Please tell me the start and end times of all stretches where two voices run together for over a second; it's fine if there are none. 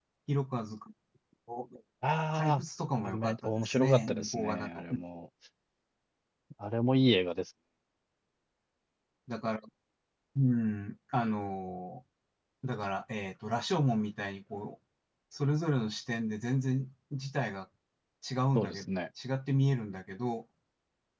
3.0-4.8

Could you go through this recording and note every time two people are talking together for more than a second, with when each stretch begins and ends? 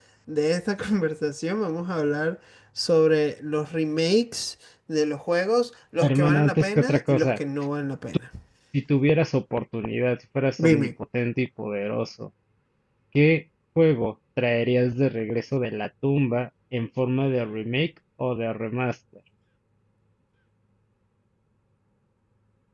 6.0-7.3

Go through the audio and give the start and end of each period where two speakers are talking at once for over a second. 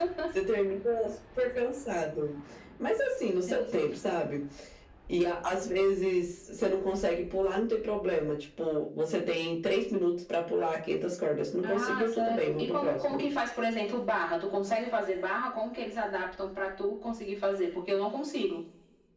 11.6-13.2

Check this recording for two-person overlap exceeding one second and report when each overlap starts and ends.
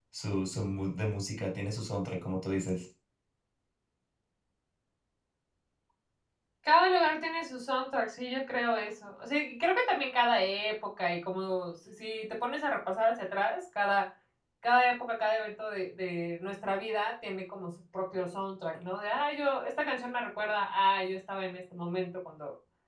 none

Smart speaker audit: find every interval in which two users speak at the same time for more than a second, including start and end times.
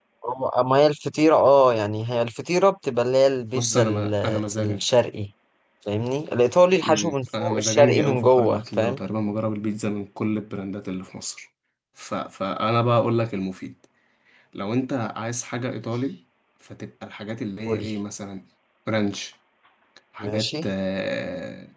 3.6-4.8, 6.8-9.0

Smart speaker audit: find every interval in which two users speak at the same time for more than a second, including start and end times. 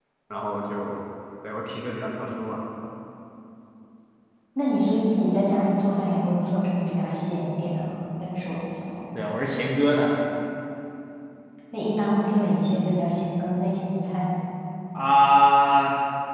none

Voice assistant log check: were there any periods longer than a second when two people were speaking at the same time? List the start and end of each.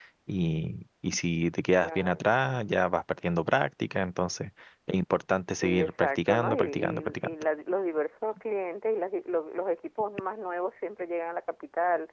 5.6-7.3

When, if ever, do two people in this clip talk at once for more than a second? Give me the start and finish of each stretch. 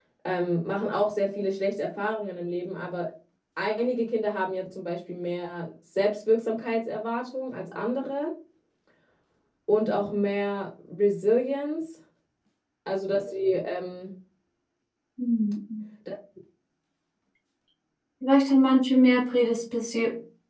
none

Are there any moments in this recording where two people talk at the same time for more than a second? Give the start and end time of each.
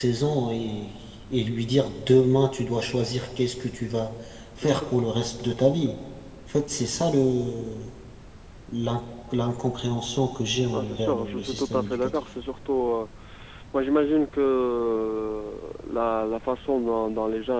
10.7-12.2

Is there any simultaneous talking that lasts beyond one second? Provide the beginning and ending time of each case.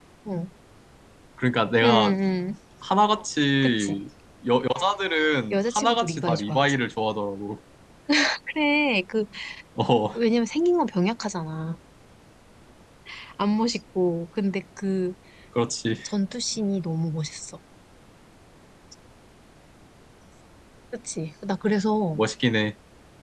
5.5-6.7

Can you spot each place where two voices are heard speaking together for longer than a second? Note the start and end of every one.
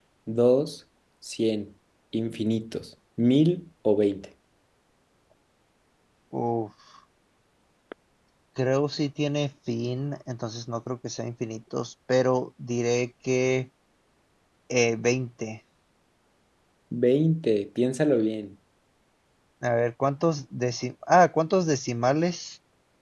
none

